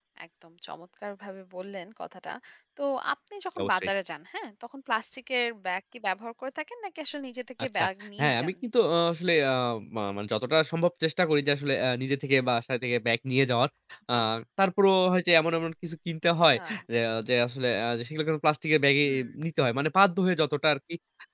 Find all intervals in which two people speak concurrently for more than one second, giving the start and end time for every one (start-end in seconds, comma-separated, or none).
none